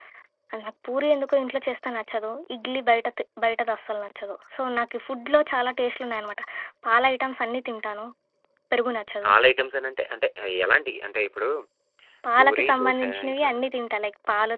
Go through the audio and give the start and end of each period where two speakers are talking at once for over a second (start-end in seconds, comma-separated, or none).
12.4-13.6